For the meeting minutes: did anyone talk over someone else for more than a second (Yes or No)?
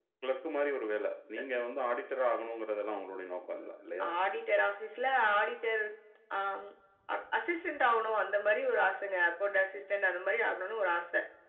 No